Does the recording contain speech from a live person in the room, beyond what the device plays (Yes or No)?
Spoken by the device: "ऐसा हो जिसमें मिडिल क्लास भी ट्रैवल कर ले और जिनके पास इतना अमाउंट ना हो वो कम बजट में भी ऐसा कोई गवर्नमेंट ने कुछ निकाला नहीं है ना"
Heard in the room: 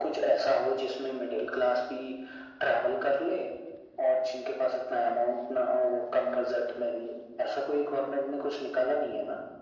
No